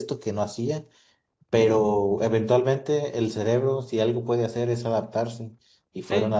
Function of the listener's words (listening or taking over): listening